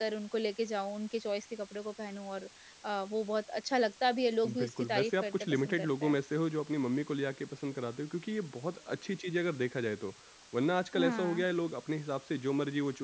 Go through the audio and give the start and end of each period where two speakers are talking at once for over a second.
4.5-6.2

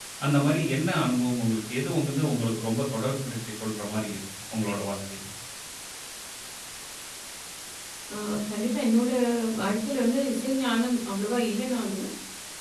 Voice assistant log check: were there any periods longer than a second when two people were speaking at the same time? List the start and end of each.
none

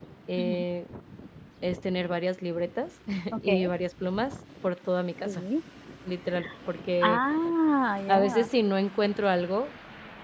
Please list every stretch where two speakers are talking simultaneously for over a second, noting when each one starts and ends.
none

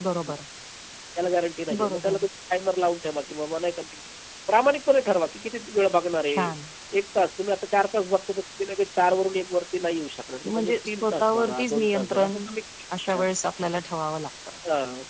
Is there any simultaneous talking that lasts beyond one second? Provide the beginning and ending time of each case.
10.4-12.4

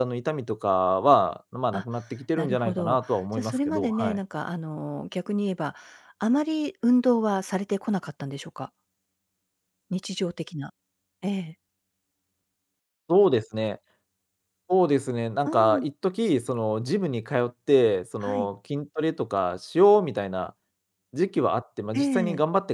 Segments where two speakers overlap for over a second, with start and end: 2.4-4.2

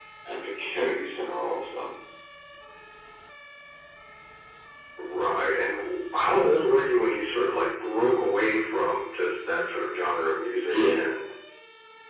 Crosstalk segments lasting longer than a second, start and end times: none

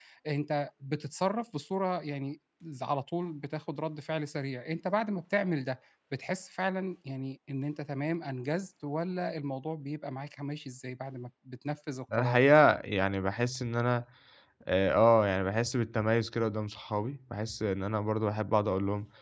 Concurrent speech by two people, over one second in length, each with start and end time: none

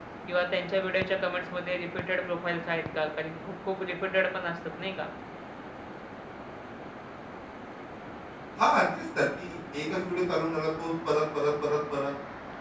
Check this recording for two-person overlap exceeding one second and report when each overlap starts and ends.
none

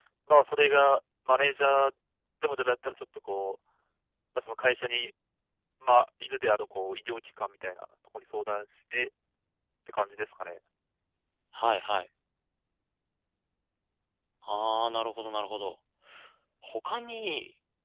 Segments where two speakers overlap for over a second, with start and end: none

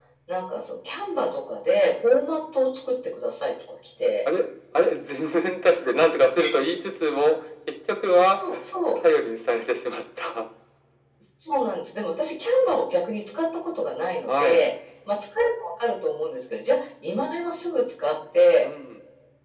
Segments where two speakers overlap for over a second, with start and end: none

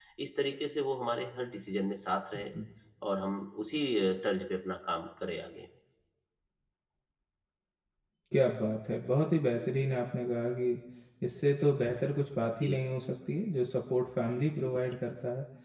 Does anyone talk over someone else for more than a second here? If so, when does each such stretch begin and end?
none

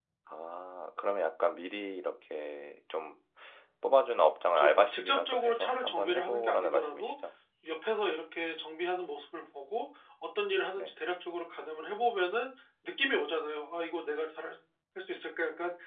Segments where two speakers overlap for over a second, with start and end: 4.6-7.1

